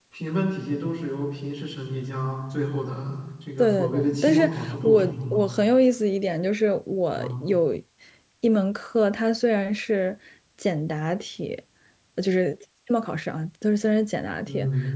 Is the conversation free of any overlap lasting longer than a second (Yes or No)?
No